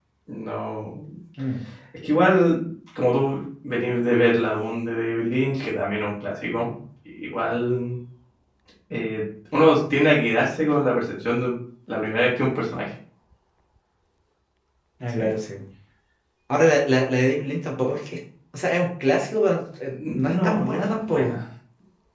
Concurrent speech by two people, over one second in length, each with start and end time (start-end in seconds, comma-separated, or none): 20.1-21.4